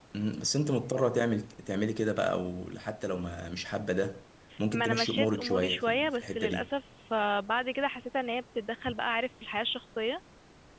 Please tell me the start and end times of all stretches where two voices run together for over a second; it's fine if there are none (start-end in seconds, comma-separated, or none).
4.7-6.7